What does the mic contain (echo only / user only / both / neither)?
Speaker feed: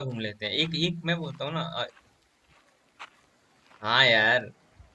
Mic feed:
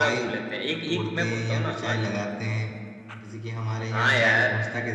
both